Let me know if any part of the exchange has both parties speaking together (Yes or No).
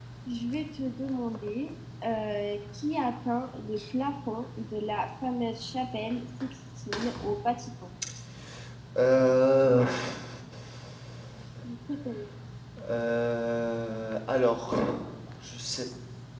No